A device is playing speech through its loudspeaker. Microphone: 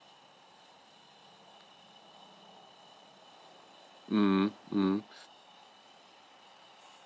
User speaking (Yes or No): Yes